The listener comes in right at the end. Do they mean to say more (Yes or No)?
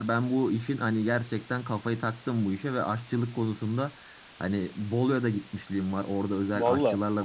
No